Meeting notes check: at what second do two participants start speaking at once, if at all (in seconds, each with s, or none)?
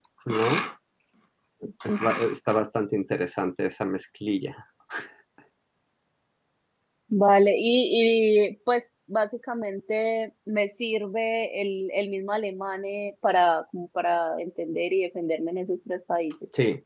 none